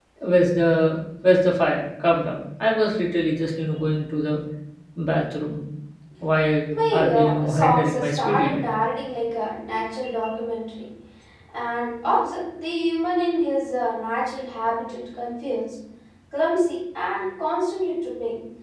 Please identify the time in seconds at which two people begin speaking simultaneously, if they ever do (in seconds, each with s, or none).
6.9 s